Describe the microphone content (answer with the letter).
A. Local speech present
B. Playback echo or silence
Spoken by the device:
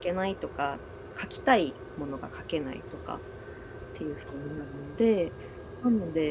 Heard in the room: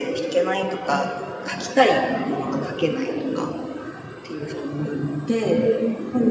B